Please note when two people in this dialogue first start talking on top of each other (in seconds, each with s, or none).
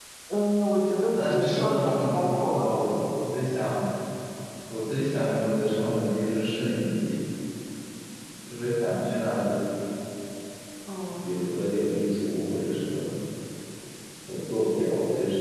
1.1 s